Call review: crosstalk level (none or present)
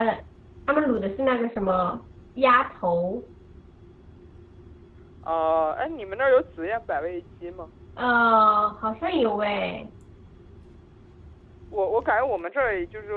none